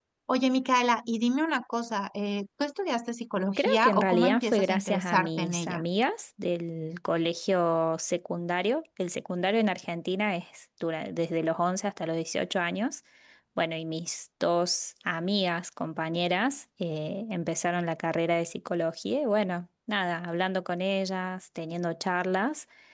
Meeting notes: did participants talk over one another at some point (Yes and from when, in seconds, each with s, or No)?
Yes, from 3.6 s